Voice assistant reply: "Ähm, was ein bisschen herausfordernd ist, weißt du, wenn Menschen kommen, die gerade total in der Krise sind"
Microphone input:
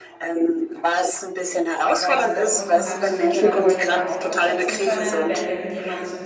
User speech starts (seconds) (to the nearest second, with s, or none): 2 s